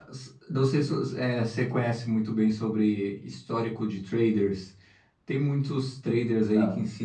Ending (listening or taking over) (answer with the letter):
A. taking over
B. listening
B